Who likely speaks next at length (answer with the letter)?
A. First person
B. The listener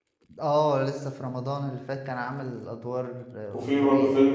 B